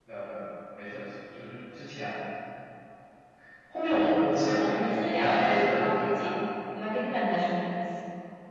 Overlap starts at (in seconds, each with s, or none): 4.7 s